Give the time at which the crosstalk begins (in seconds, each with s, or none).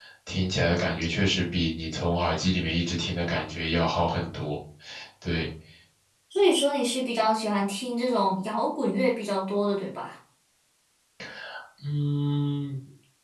none